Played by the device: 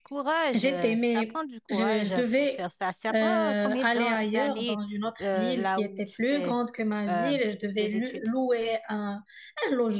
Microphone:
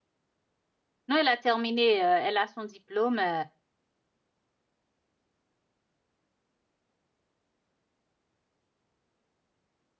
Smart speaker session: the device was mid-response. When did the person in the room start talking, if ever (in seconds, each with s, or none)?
1.1 s